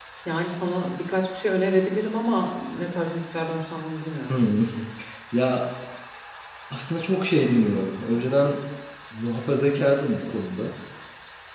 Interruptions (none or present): none